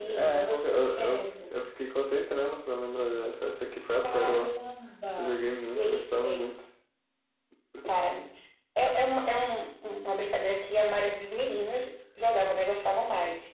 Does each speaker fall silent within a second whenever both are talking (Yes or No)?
No